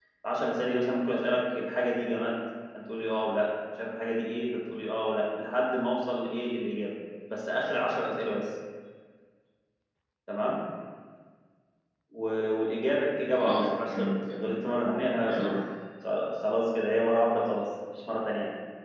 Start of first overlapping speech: 13.3 s

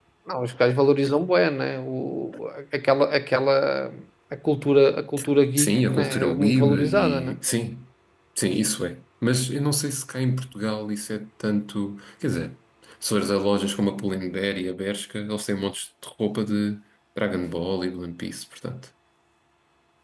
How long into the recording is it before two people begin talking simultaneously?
5.6 s

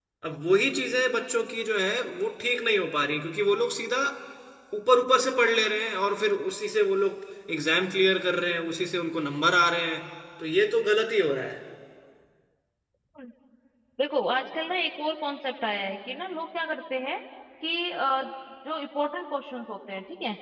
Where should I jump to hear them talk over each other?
none

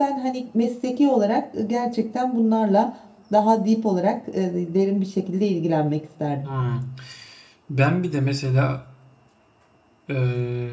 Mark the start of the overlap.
none

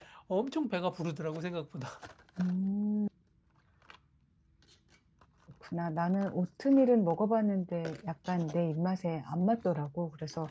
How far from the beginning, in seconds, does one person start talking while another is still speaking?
none

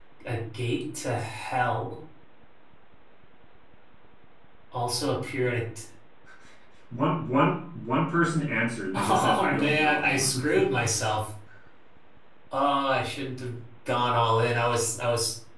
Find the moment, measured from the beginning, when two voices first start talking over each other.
8.9 s

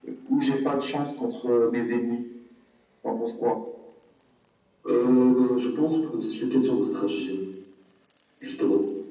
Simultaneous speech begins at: none

